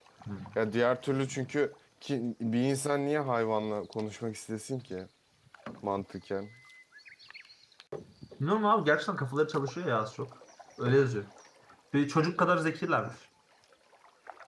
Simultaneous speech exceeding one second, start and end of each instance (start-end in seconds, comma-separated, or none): none